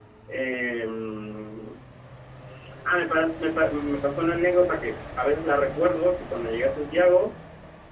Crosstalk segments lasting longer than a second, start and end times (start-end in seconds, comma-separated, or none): none